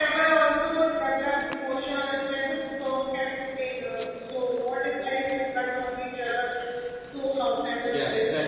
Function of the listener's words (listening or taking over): taking over